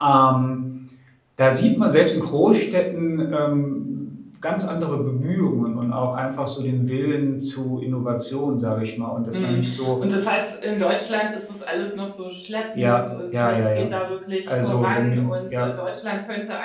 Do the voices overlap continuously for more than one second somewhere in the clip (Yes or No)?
Yes